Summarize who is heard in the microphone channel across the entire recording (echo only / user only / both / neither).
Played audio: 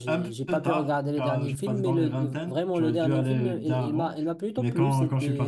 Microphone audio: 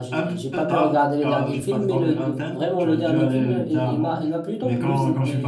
echo only